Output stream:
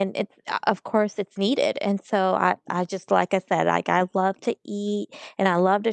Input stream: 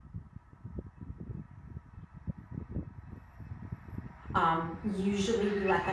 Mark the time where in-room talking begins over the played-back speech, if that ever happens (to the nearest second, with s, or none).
4 s